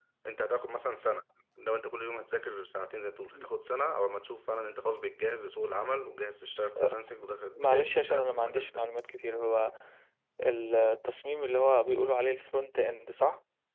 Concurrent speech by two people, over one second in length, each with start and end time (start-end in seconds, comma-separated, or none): 7.5-8.8